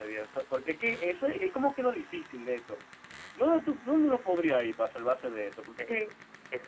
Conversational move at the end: taking over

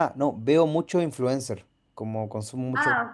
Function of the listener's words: listening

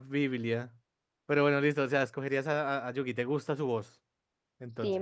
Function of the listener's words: taking over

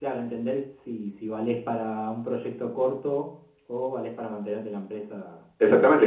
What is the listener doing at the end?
taking over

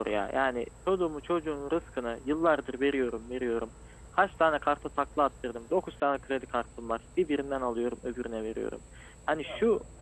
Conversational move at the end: listening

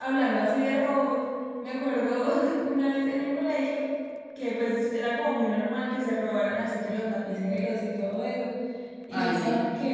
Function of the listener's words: listening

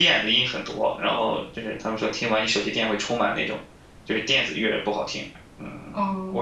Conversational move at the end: taking over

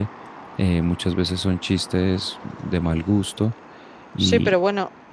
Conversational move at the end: taking over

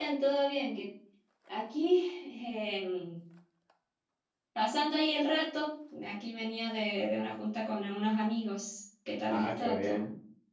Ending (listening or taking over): taking over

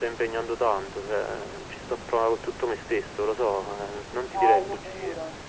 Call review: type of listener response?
taking over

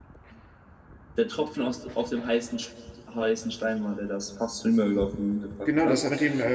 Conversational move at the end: taking over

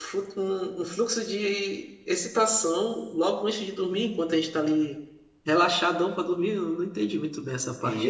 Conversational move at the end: taking over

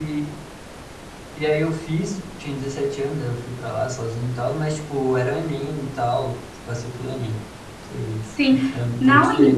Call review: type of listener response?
taking over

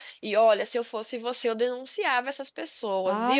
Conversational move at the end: taking over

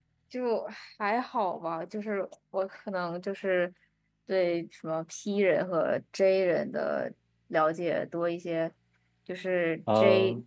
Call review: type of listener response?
listening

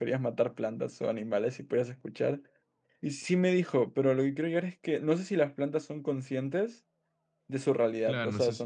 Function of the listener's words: taking over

